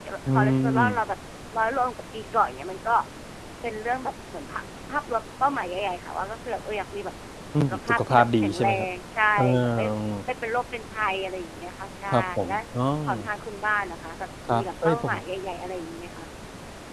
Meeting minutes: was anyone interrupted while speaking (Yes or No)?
Yes